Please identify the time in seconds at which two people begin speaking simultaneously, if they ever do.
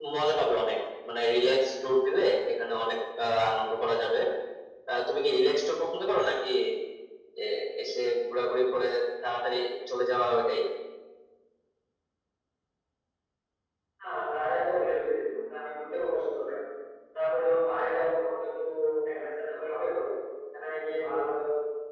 none

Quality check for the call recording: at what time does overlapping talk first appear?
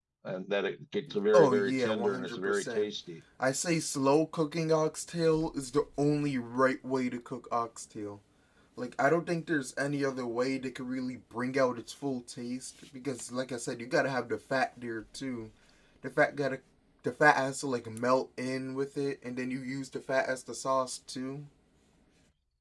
1.3 s

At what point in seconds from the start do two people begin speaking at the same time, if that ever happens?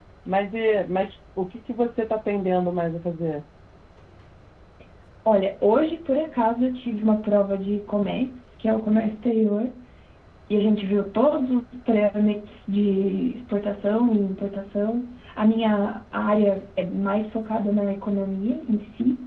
none

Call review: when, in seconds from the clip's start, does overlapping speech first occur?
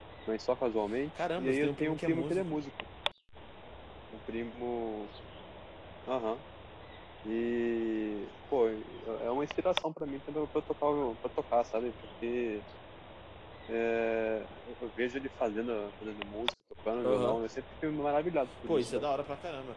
1.4 s

